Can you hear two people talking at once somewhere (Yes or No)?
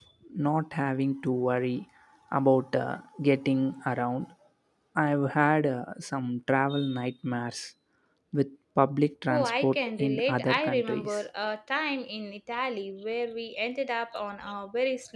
Yes